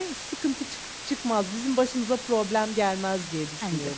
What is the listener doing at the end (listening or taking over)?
taking over